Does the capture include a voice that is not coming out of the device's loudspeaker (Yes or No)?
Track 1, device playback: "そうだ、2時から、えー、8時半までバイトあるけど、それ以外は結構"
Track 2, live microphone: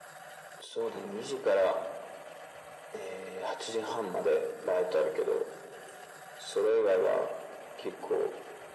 No